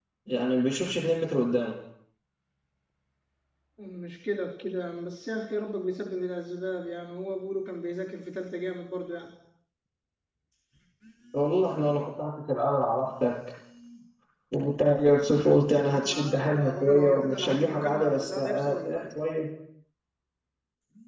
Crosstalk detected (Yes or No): Yes